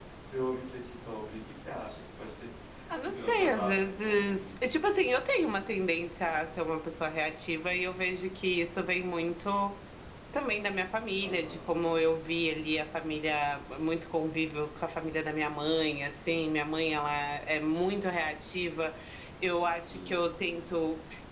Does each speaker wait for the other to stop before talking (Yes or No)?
No